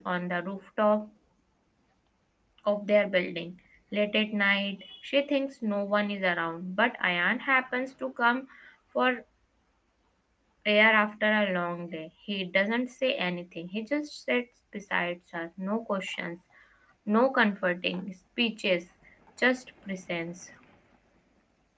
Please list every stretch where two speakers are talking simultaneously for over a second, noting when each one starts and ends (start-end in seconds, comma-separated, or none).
none